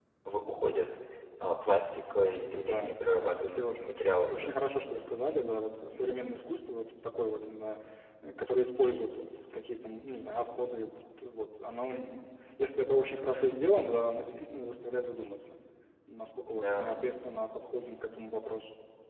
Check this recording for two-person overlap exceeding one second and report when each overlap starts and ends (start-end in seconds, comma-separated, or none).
2.5-3.7